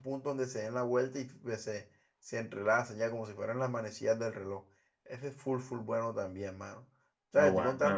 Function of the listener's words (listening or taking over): listening